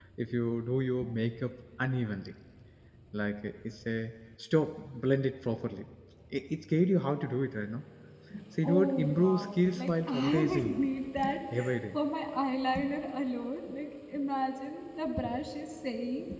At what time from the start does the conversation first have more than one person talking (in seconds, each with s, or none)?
8.6 s